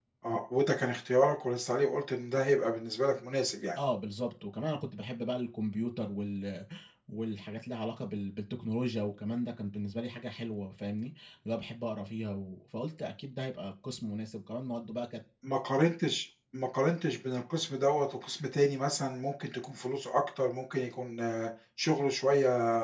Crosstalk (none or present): none